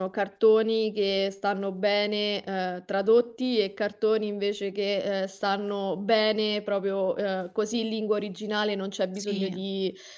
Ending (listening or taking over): listening